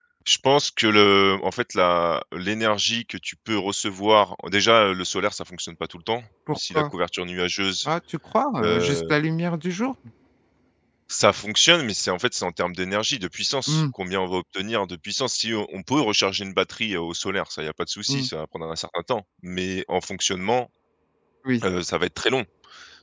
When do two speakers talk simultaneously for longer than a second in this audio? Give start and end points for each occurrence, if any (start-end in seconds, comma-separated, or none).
none